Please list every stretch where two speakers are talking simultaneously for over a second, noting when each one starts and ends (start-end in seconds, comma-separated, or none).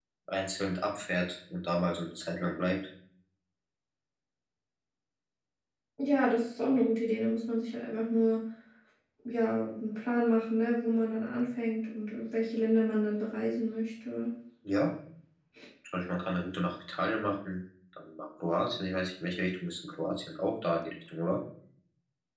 none